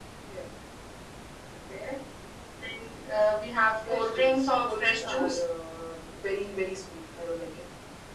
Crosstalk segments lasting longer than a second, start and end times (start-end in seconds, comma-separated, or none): 3.9-5.4